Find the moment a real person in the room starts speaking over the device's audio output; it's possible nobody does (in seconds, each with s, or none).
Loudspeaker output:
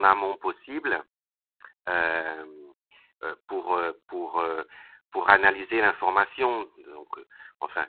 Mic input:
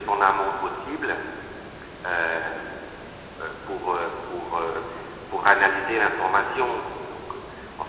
none